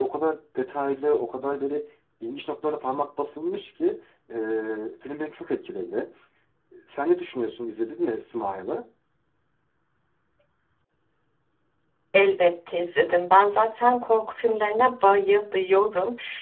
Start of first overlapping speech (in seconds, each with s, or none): none